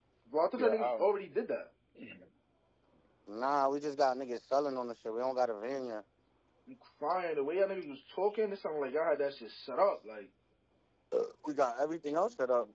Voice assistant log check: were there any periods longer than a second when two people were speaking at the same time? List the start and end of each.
none

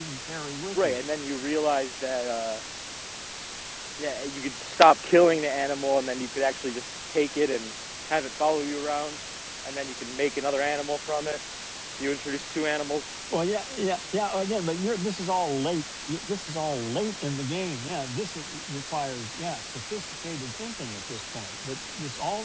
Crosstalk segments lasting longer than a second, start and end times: none

